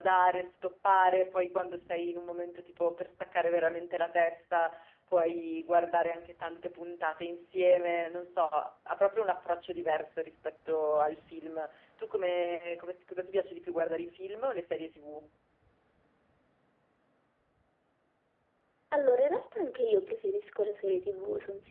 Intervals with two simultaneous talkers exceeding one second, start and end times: none

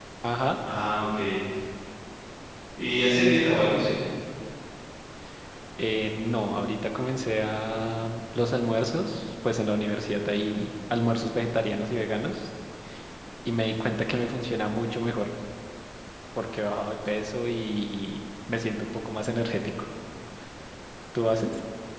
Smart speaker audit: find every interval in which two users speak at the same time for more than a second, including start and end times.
none

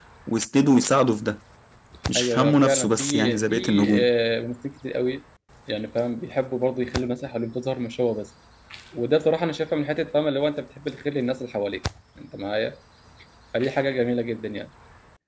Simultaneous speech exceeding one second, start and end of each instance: 2.2-4.1

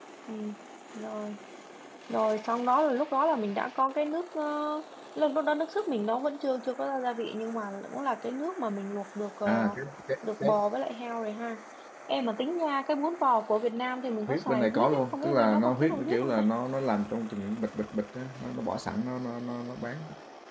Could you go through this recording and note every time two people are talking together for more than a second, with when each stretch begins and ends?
14.3-16.4

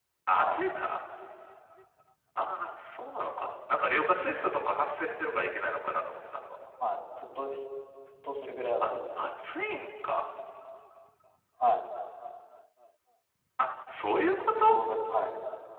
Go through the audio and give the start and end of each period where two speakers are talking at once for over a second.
none

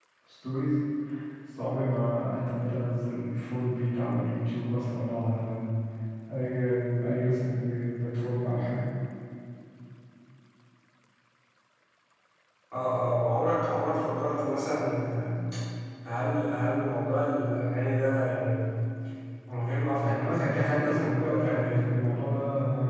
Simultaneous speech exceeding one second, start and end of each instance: 20.0-22.3

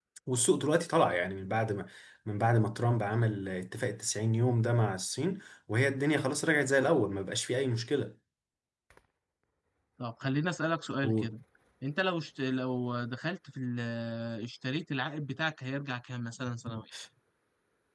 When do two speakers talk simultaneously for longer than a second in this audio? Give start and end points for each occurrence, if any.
none

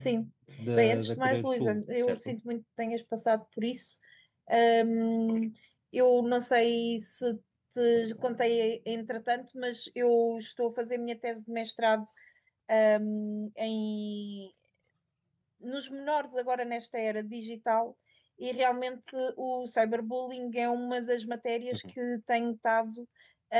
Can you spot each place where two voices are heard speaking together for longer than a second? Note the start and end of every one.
0.8-2.4

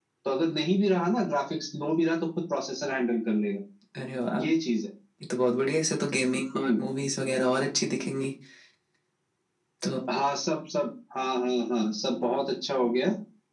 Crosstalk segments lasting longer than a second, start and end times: none

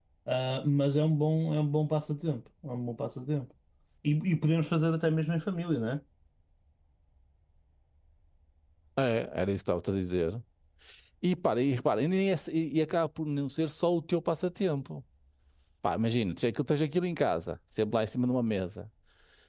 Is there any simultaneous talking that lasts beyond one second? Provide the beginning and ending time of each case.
none

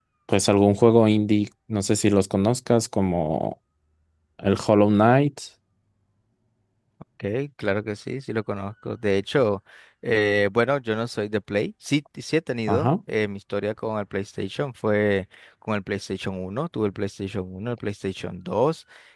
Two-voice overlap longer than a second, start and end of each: none

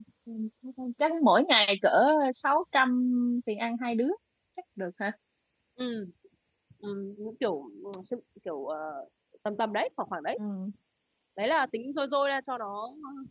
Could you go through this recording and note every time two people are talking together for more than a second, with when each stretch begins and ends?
none

